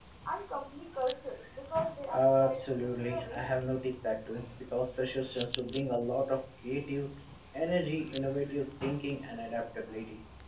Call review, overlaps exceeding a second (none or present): present